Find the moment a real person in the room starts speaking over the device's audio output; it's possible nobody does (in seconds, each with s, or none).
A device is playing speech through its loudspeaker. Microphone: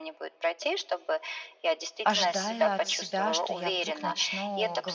2.0 s